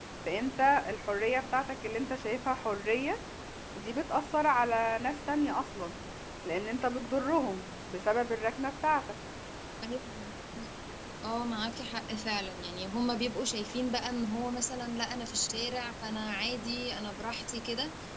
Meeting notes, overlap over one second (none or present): none